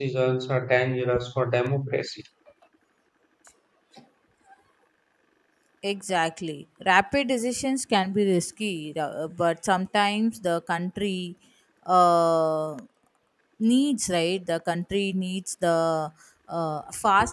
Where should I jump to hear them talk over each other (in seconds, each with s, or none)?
none